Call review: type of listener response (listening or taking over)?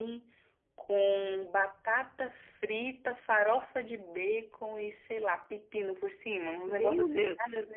taking over